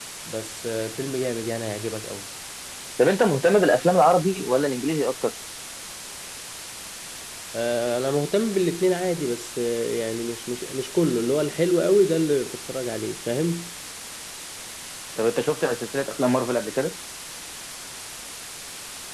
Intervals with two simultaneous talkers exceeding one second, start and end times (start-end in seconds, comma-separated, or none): none